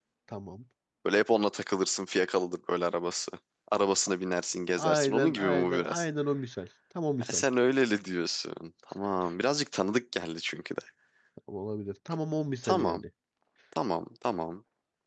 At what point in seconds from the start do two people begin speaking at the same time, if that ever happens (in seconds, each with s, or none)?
4.8 s